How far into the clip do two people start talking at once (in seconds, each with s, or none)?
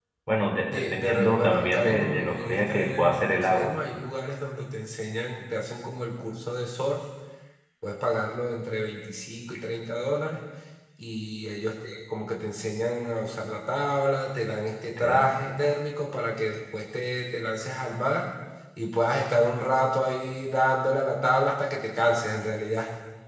0.7 s